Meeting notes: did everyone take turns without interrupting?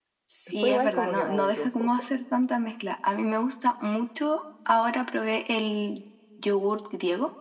No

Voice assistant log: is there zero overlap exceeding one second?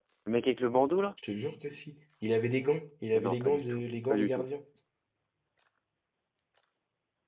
No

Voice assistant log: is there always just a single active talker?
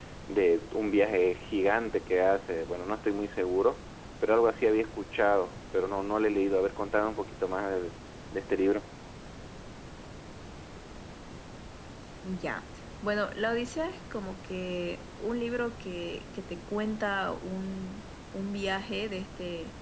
Yes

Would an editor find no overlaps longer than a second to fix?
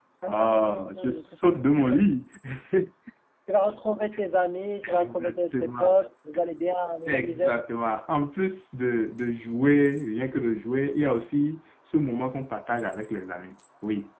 No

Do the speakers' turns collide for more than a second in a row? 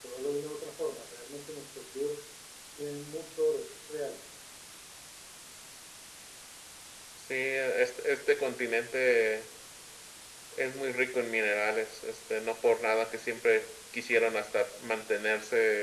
No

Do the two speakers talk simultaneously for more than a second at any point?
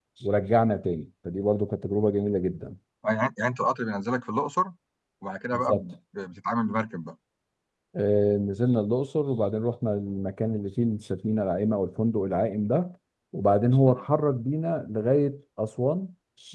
No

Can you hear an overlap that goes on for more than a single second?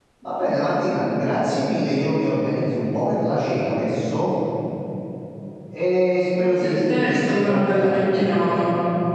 Yes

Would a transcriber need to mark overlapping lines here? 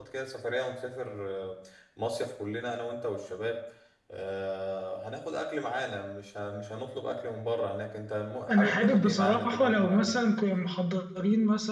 Yes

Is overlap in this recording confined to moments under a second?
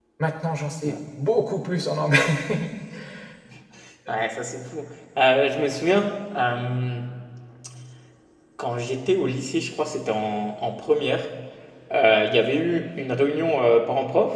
Yes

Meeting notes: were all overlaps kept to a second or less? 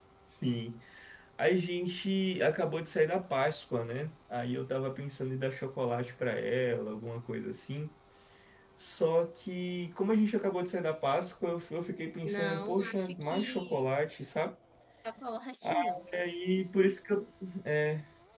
No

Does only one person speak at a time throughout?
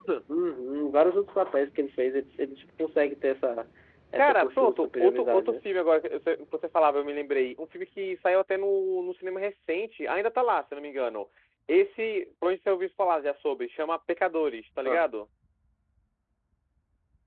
No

